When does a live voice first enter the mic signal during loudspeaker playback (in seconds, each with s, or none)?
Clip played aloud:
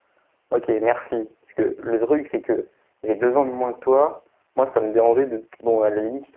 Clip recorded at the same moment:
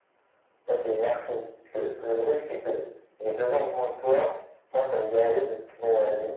none